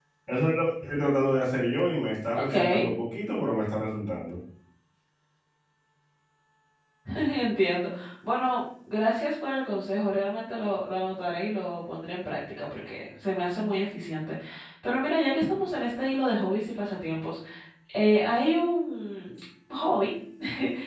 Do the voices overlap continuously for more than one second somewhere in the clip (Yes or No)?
No